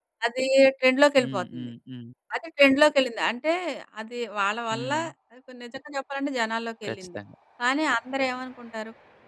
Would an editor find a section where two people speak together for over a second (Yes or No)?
No